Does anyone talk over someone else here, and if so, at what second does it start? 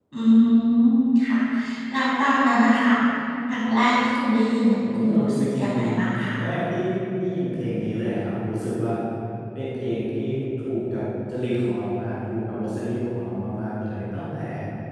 4.8 s

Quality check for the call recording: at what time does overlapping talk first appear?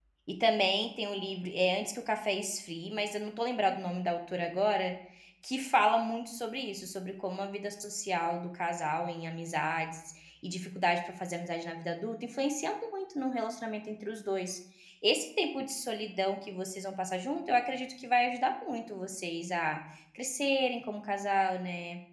none

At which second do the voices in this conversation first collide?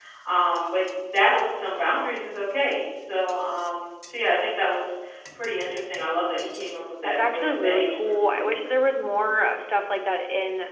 7.0 s

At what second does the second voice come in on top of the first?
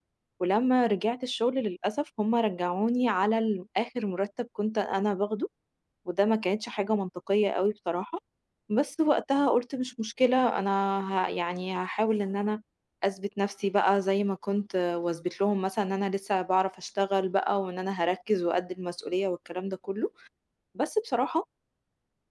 none

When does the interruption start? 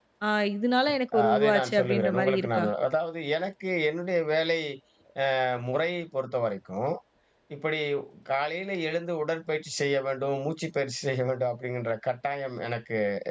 1.2 s

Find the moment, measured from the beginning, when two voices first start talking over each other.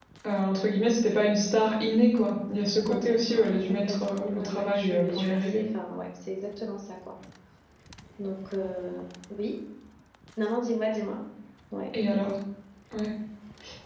2.8 s

